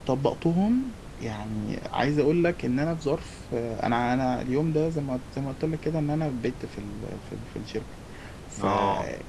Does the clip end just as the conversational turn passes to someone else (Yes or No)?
No